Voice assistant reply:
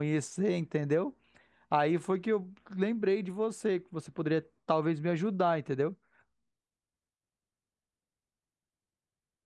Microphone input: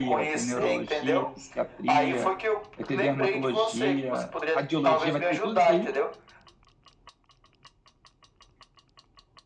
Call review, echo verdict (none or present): present